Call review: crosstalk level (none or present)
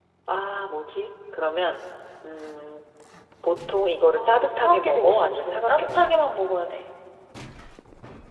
present